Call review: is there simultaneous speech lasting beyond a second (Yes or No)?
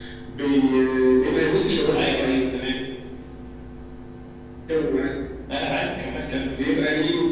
No